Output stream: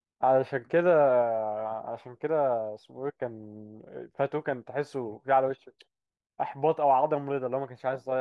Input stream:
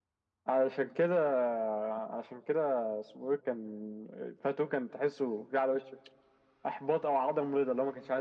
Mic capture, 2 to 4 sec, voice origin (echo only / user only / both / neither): echo only